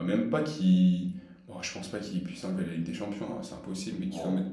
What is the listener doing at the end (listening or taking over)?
listening